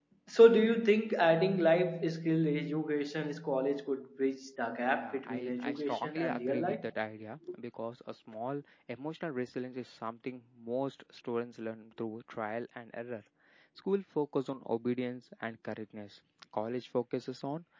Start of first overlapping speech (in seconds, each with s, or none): 4.9 s